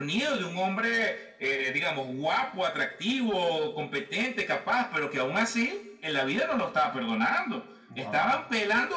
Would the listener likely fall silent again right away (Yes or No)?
Yes